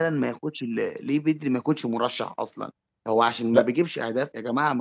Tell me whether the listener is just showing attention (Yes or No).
Yes